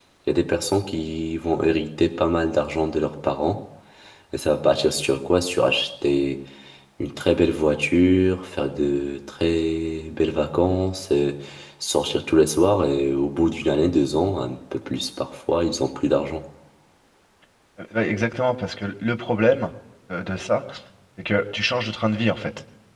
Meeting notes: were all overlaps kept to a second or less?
Yes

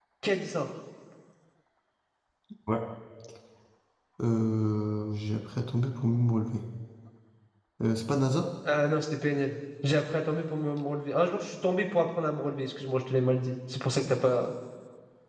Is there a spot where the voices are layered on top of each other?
No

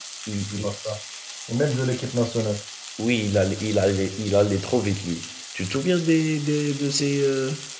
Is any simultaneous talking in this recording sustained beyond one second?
No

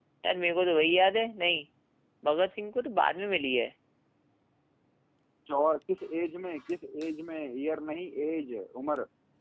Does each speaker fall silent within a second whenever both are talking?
Yes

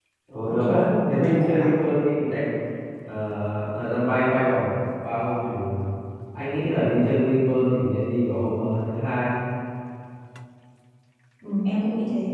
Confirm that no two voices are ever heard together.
No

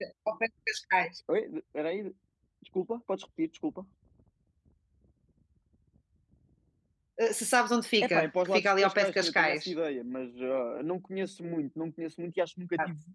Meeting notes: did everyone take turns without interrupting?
No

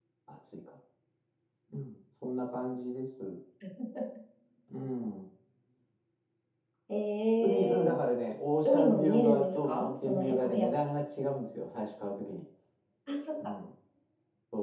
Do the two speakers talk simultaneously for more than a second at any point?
Yes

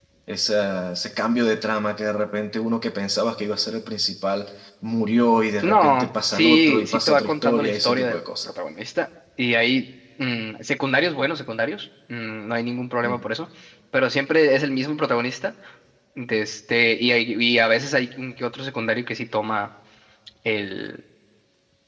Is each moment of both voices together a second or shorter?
No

